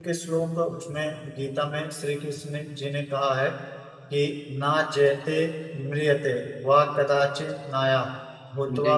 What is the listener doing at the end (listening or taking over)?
listening